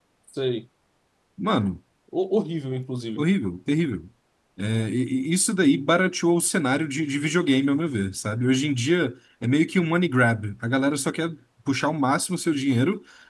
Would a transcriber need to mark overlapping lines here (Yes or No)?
No